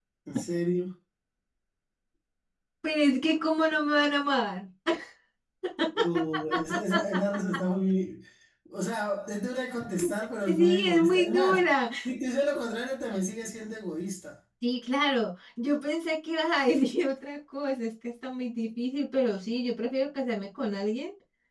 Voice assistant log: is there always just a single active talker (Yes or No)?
No